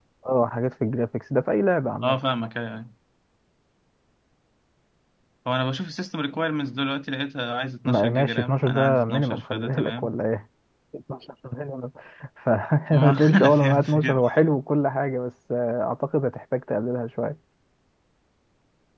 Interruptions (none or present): present